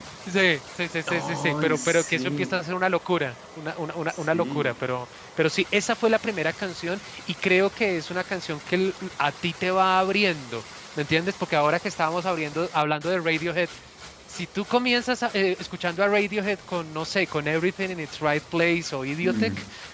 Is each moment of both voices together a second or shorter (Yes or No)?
No